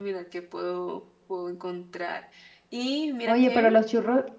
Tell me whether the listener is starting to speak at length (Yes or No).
Yes